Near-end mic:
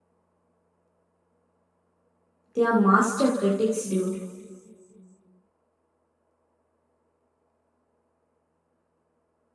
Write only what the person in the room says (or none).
They are master critics, dude.